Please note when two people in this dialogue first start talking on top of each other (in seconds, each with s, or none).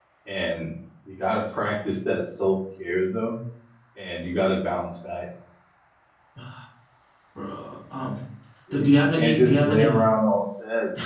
8.7 s